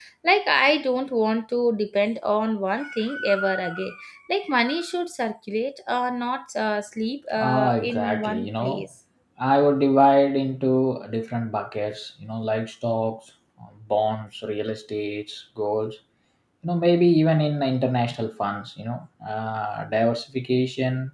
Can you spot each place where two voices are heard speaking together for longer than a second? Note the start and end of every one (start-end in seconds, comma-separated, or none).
7.4-8.9